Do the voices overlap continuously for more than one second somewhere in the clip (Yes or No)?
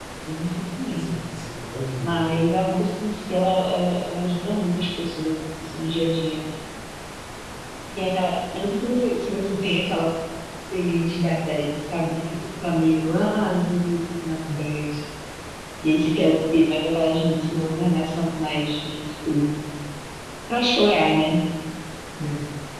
No